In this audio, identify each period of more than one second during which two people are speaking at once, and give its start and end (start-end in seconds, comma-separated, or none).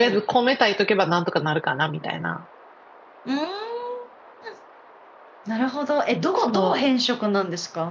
none